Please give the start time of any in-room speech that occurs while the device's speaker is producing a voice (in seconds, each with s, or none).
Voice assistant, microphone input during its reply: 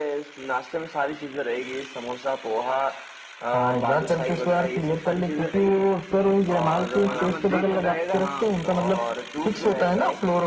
7.0 s